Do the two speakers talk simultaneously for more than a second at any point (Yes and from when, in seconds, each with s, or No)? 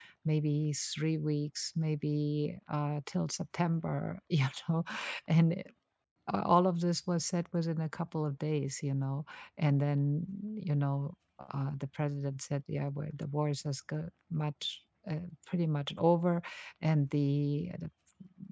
No